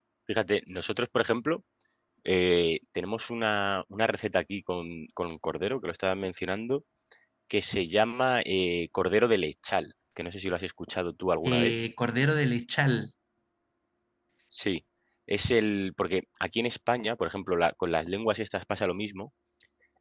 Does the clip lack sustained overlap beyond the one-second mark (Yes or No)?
Yes